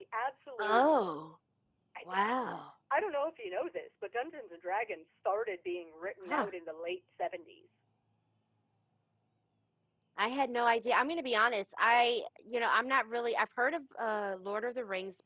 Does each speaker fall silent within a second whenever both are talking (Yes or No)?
Yes